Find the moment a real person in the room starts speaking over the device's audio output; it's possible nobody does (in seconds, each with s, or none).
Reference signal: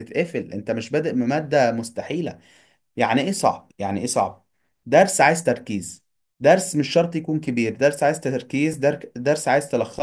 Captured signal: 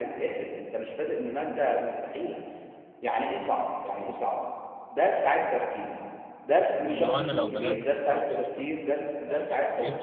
6.8 s